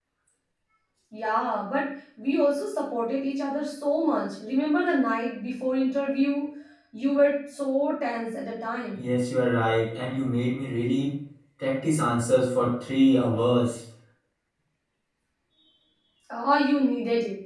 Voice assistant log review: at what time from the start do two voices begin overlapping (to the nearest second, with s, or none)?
none